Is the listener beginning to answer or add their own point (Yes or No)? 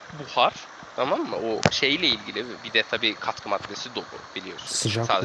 Yes